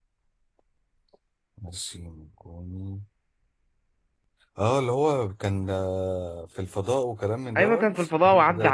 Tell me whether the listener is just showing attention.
No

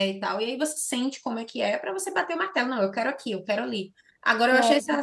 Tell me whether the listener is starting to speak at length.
No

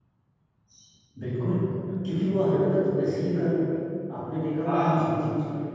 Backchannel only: Yes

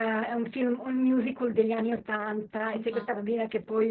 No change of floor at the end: Yes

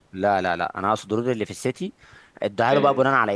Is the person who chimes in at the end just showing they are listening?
Yes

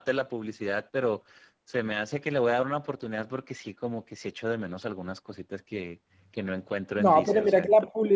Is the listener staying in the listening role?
No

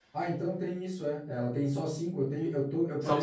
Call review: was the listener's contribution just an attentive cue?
No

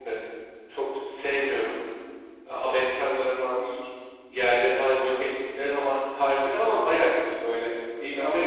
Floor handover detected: No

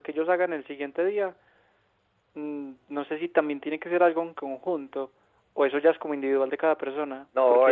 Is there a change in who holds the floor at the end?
Yes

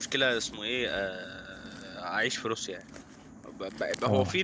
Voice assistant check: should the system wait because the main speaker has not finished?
Yes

